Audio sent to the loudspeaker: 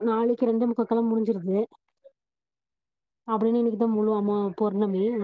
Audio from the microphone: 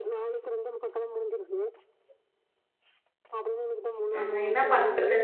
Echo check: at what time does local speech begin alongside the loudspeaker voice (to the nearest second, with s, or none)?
4 s